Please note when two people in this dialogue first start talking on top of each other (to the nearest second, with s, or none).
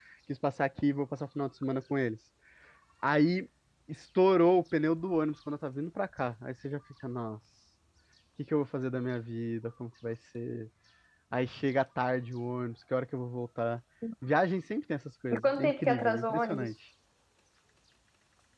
15 s